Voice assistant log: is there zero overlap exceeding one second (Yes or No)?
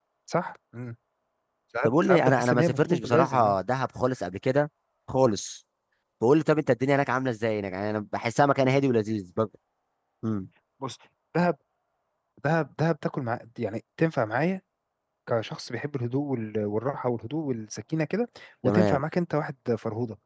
No